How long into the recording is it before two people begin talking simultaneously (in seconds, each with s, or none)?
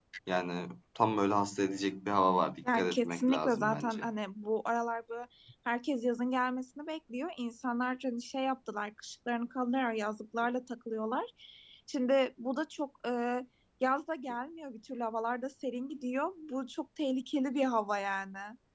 2.6 s